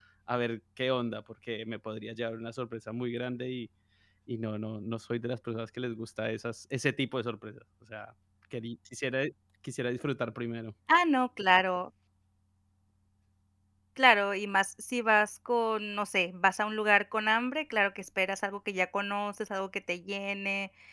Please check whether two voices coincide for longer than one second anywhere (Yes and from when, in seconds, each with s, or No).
No